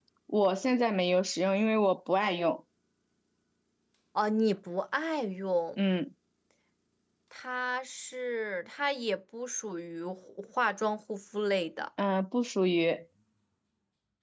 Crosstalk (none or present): none